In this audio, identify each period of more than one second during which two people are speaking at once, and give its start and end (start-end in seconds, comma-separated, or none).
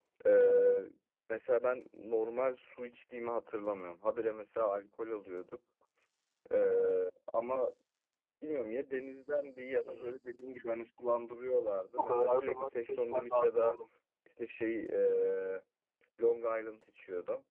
12.0-13.8